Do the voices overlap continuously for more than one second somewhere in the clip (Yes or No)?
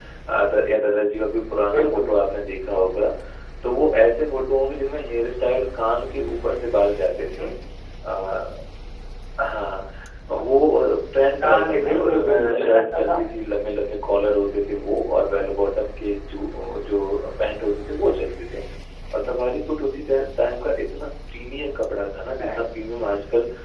Yes